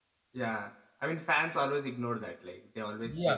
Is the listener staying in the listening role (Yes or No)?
No